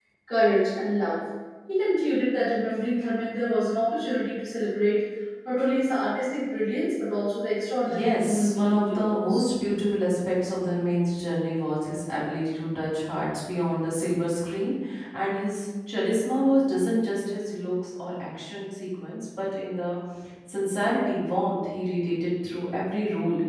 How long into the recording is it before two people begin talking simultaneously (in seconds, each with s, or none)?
7.8 s